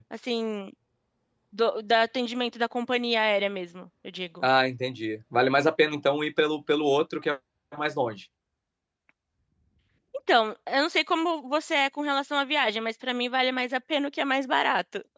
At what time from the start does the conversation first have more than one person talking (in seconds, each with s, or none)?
none